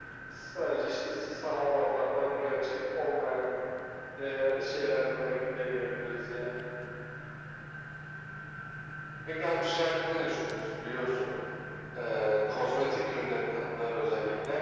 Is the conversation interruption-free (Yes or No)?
Yes